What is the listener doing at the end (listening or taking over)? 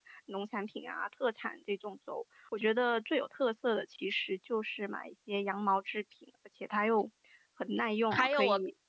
taking over